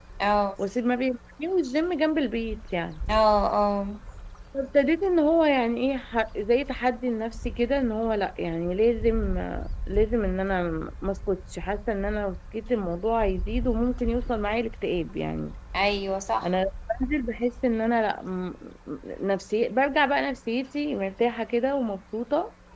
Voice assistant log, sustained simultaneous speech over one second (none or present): none